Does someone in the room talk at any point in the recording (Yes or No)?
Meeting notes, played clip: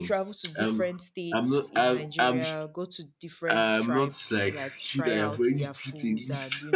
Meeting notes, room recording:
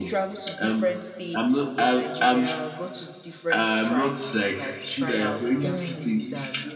Yes